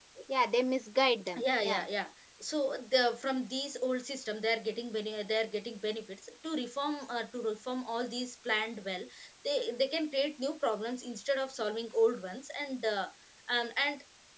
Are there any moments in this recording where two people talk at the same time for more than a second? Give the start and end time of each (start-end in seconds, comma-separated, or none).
none